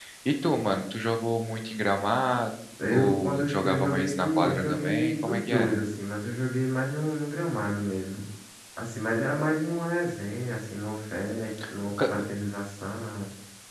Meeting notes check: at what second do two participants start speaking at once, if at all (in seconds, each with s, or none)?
2.9 s